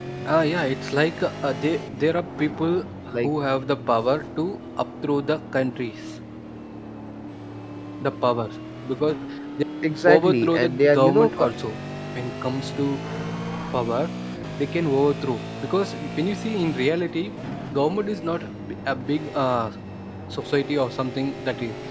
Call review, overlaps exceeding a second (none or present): present